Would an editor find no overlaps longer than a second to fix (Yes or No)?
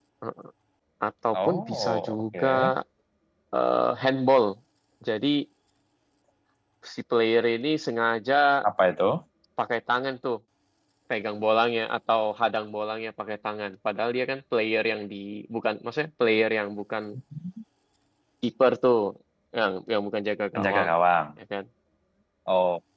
No